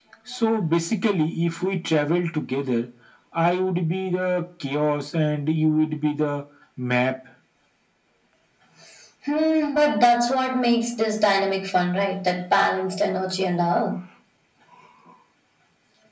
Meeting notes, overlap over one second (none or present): none